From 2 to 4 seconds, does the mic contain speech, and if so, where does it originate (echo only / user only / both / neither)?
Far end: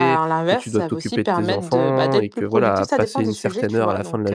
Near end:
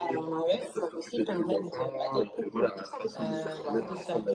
both